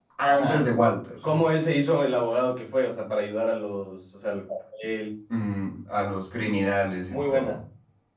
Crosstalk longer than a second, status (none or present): none